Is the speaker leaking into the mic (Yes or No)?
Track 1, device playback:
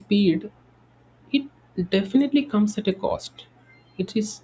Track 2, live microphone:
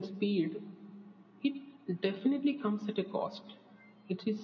Yes